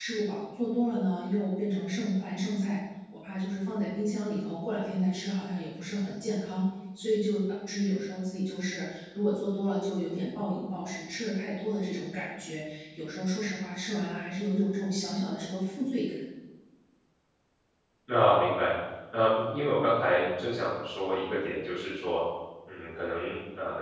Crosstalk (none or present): none